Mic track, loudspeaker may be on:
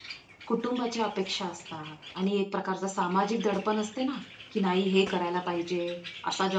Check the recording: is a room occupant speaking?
Yes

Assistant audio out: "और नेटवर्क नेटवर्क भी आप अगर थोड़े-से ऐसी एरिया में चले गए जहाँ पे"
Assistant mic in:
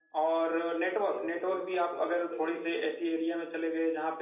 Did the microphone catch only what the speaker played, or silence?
No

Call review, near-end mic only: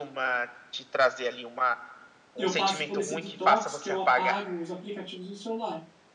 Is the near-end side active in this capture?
Yes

